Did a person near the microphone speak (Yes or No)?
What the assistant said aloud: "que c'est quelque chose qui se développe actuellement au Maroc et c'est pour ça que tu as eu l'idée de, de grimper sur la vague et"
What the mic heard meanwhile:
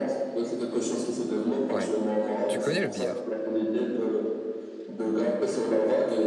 Yes